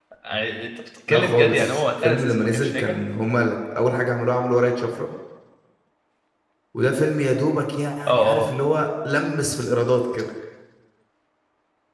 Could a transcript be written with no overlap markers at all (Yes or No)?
No